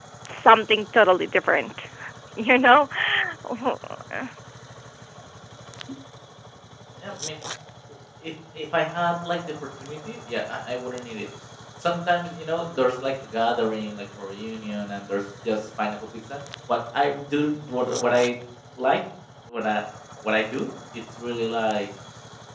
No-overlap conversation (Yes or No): Yes